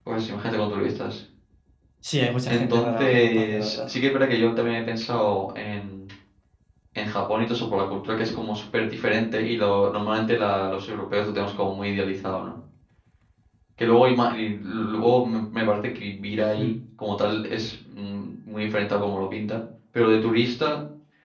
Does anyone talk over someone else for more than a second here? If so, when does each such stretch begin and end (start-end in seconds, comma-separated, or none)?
2.5-3.9